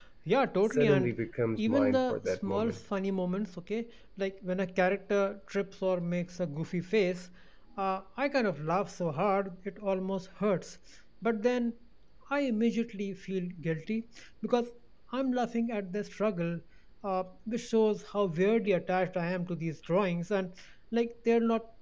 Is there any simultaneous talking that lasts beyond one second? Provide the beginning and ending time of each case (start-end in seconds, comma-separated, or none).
1.6-2.8